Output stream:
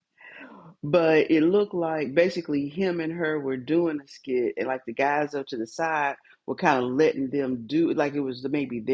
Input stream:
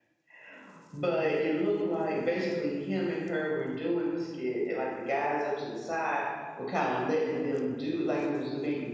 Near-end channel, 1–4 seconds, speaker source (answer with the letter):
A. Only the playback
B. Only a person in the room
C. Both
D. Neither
A